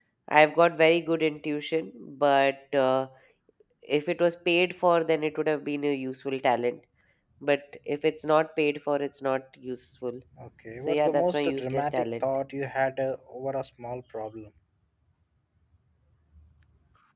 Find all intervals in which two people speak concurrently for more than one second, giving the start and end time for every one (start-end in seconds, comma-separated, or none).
10.9-12.2